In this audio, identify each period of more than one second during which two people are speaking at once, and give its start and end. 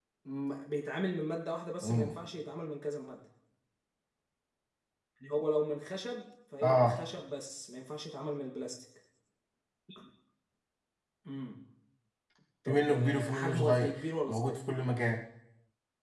12.7-14.6

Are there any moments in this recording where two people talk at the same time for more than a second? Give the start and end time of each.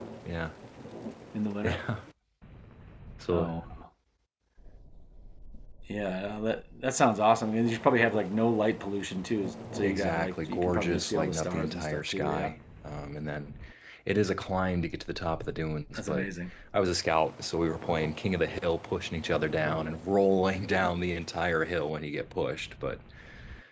9.8-12.5

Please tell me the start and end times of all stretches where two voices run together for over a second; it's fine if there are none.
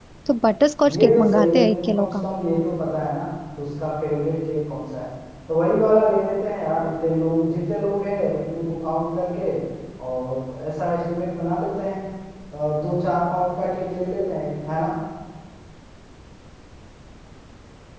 0.9-2.2

